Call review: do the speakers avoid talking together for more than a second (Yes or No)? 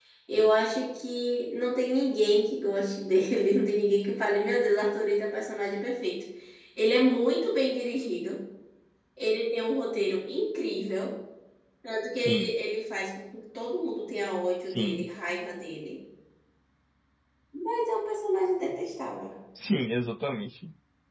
Yes